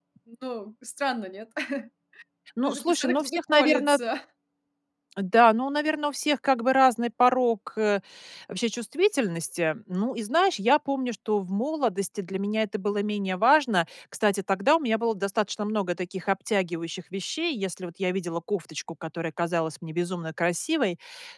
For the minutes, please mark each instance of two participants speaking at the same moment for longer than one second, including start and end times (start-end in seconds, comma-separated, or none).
2.6-4.0